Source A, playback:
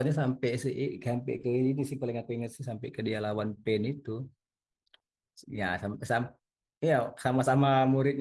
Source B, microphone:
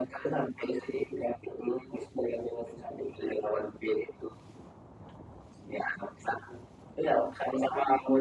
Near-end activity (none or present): none